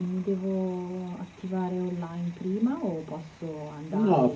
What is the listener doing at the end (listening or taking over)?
taking over